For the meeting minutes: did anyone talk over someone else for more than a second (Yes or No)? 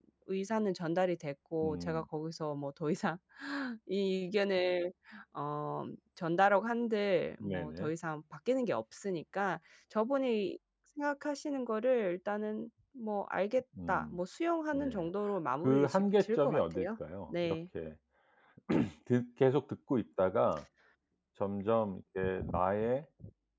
Yes